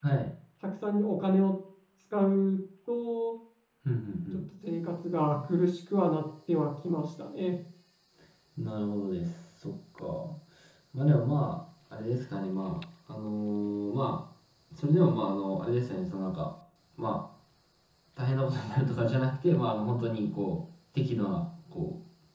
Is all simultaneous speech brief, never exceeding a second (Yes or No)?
Yes